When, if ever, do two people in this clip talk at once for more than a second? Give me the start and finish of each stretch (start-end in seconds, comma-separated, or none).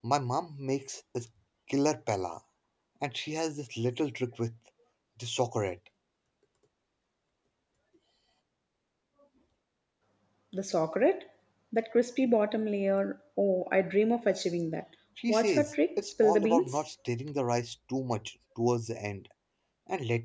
15.3-16.8